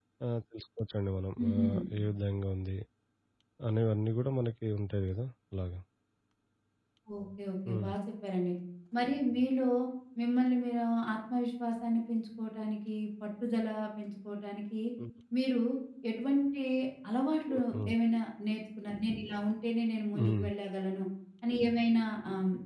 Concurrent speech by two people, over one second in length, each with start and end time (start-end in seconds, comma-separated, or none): none